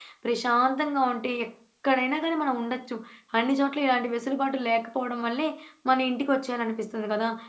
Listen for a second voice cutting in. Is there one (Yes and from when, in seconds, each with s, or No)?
No